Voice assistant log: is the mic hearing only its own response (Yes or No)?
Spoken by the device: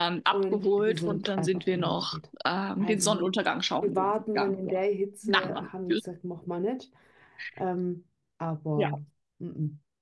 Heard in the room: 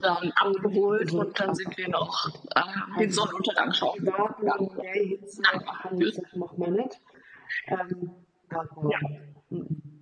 Yes